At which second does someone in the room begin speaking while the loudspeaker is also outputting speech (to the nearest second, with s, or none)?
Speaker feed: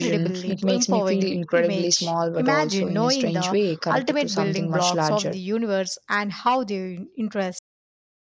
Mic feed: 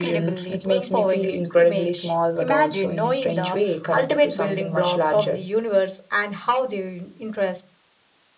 none